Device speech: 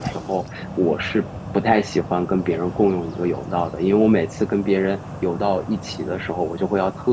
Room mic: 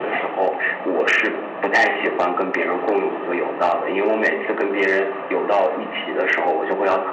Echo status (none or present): present